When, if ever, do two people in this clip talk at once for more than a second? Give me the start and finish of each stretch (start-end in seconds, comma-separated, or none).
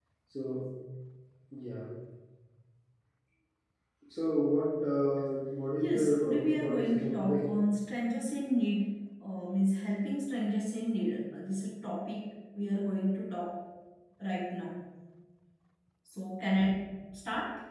5.8-7.5